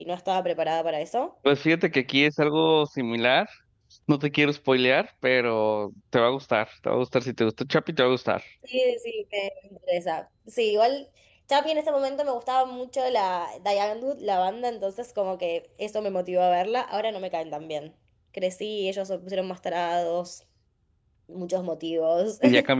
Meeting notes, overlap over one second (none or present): none